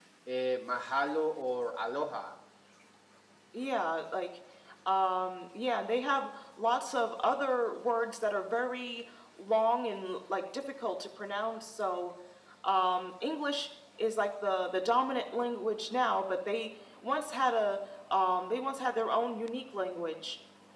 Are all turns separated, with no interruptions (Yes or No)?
Yes